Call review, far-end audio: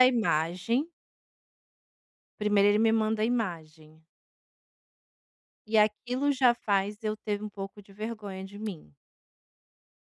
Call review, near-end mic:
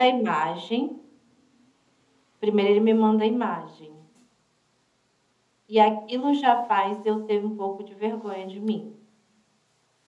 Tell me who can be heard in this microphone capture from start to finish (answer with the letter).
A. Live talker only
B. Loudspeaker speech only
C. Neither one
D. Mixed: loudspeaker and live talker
B